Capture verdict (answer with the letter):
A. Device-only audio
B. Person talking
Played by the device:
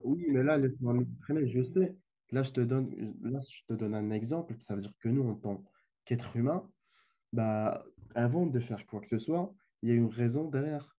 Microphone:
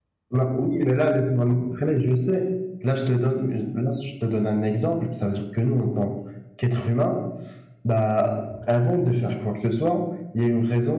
A